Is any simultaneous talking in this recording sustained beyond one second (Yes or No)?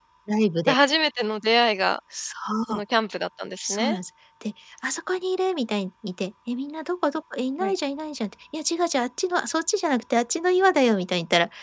No